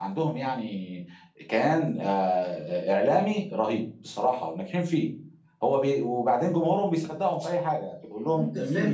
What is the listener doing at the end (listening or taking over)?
taking over